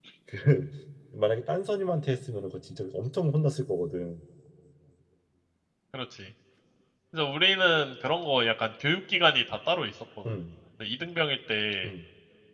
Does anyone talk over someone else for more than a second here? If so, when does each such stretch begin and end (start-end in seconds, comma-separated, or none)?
none